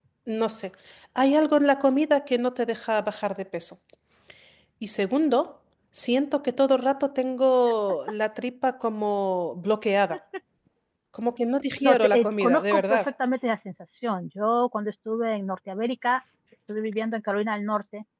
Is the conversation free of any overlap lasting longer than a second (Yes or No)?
No